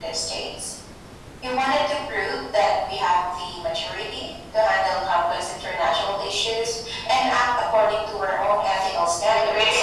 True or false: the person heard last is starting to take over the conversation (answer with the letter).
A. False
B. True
B